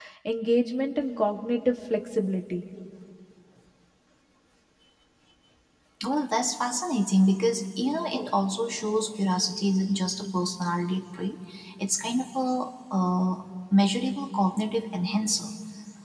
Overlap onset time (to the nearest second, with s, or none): none